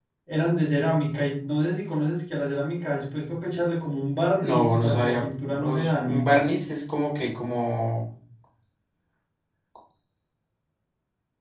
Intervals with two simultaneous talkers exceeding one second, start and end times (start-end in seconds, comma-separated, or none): 4.4-6.3